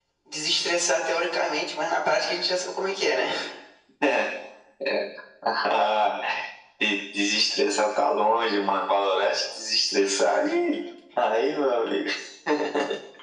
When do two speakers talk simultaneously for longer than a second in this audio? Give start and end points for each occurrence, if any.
none

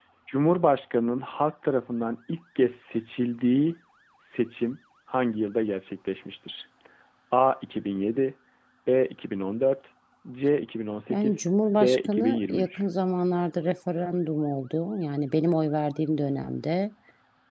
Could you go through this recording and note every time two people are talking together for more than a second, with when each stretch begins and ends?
11.1-12.8

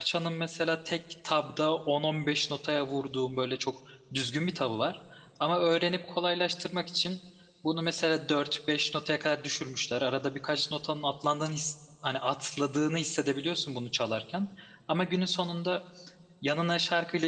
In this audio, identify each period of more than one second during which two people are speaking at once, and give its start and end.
none

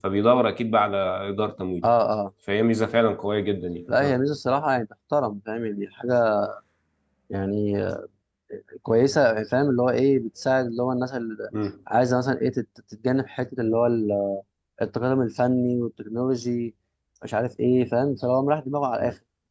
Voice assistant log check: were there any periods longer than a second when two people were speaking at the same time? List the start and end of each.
none

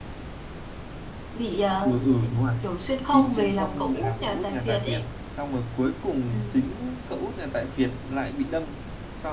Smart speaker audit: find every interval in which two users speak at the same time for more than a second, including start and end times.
3.1-5.0

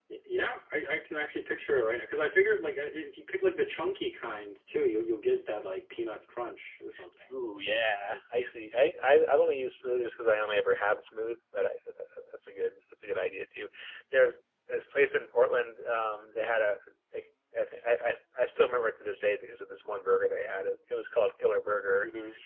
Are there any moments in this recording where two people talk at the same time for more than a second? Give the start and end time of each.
none

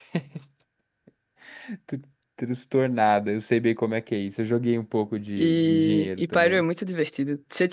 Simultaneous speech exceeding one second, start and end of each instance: 5.4-6.6

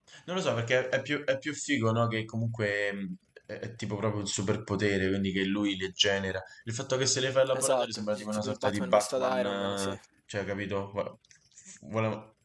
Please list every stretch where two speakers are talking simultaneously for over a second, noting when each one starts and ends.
7.5-10.0

